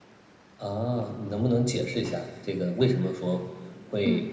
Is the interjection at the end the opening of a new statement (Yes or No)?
No